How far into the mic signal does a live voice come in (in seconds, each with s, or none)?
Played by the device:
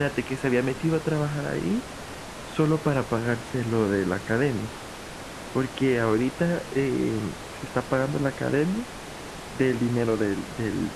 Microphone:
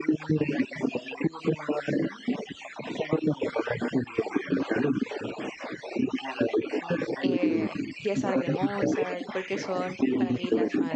7.2 s